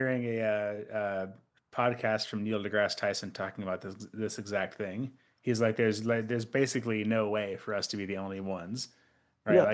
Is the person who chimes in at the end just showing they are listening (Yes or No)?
Yes